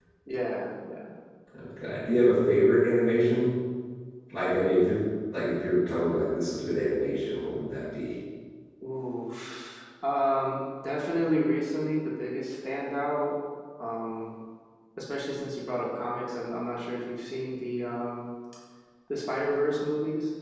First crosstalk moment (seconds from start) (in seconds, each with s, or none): none